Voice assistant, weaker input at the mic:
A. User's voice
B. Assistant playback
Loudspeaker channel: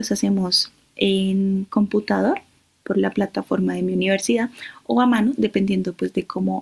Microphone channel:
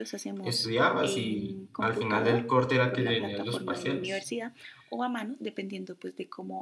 B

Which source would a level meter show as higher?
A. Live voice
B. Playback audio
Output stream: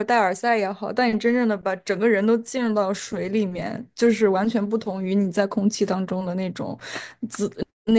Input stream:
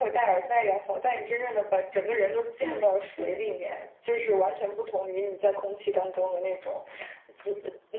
B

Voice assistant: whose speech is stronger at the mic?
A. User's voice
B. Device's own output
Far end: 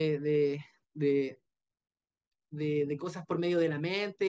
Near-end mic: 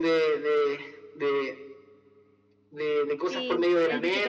B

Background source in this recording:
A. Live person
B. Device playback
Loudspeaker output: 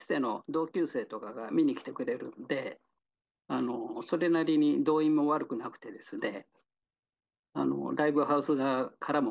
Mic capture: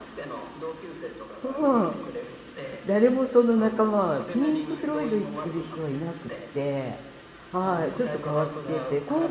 B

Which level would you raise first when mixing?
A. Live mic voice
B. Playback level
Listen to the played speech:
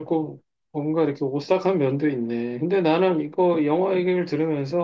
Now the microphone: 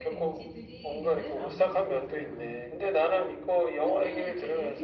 A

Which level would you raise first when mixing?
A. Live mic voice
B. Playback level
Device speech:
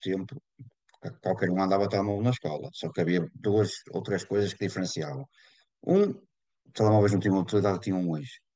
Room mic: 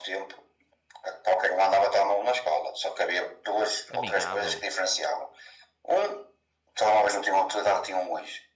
A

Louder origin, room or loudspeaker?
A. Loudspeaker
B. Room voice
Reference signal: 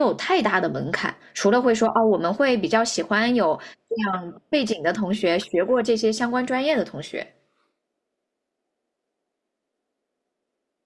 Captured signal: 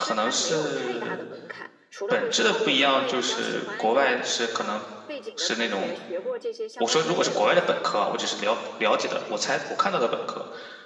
B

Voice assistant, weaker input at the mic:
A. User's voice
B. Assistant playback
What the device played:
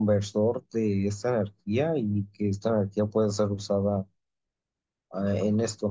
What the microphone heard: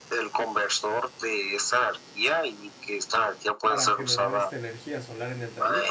A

